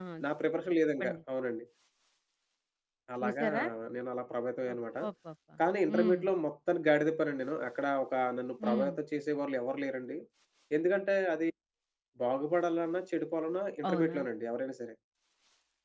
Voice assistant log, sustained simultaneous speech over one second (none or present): none